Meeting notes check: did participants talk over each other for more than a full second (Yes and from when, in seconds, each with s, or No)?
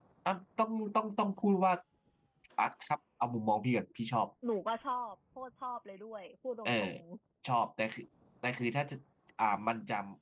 No